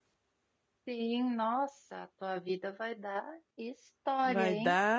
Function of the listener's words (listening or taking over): taking over